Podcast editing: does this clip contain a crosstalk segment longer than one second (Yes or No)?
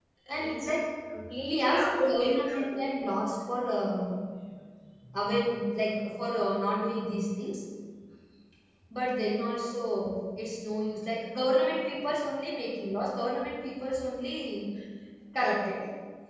Yes